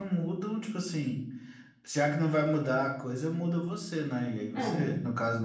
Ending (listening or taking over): listening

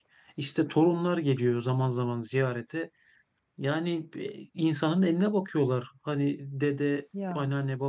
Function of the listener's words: listening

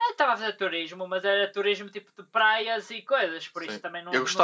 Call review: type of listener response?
taking over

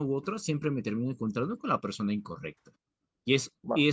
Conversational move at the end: listening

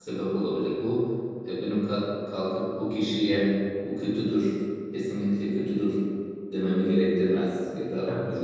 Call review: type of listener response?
listening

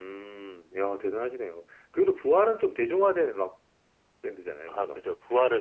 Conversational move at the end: taking over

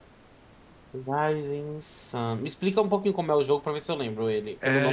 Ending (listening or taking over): taking over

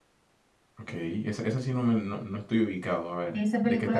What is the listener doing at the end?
taking over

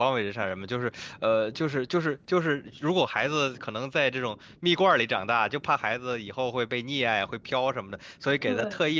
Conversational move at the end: listening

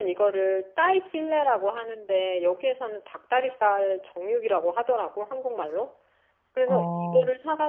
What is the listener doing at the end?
listening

